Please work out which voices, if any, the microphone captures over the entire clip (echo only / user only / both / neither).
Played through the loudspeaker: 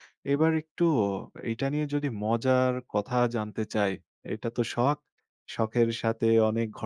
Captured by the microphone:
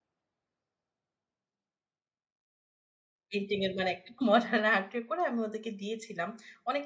user only